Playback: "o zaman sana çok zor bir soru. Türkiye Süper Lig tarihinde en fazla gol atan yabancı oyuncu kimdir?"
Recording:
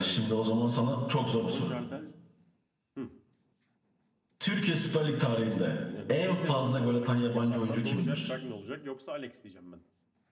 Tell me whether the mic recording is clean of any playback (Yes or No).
No